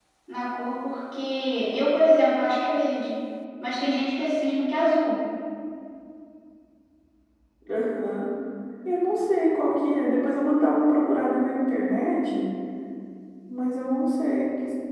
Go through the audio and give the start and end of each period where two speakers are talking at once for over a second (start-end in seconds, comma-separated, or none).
none